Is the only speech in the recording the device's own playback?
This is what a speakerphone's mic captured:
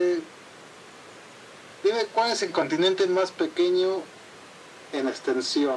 Yes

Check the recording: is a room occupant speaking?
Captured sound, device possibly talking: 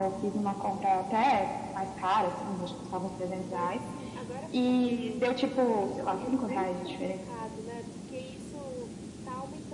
Yes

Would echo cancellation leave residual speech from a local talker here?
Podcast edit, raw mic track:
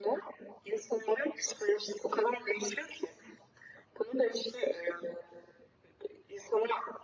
No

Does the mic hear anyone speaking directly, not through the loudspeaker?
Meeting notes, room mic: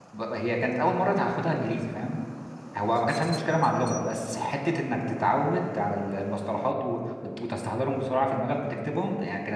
Yes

